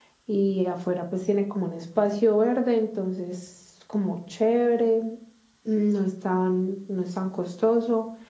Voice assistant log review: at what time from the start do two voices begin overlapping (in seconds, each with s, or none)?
none